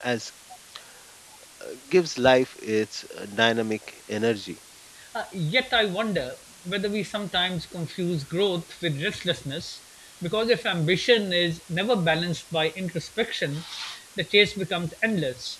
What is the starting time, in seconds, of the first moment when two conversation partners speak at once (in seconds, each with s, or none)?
none